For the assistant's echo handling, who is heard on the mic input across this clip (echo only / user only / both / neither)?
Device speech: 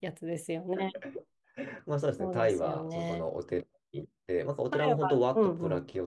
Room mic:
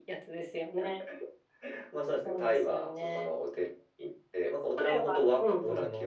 both